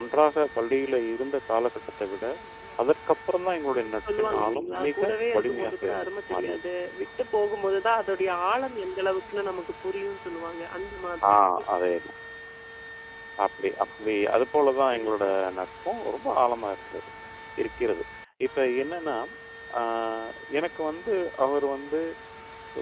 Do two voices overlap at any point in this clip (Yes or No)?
Yes